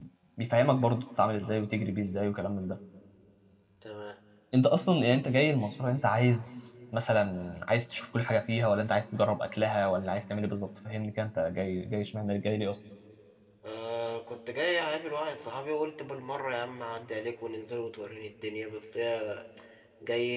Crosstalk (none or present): none